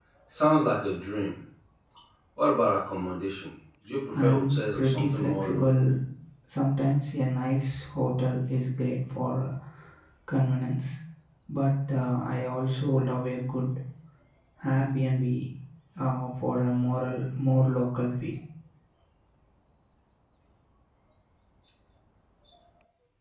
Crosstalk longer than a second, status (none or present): present